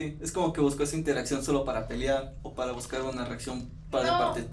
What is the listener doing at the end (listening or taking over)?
taking over